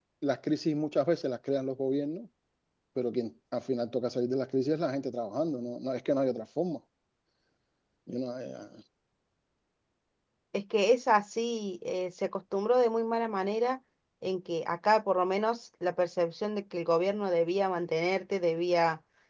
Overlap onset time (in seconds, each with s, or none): none